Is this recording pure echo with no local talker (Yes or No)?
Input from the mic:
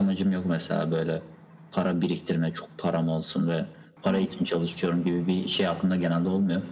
Yes